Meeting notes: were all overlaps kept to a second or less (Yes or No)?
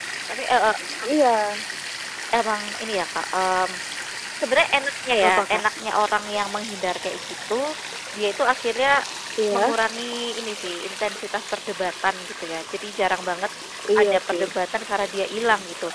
Yes